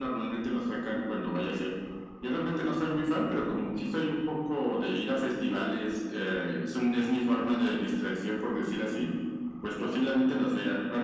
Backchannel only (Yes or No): Yes